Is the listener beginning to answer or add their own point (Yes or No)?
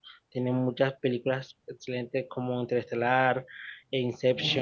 No